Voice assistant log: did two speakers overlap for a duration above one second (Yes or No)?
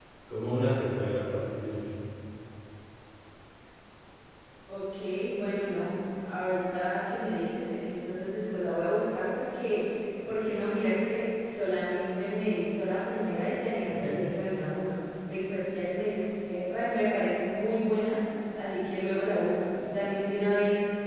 No